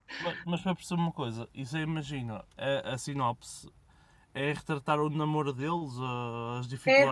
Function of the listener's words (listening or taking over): taking over